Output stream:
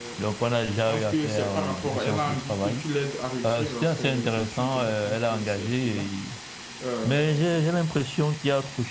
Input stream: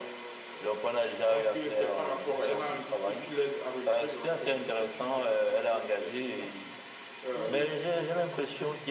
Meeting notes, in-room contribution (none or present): present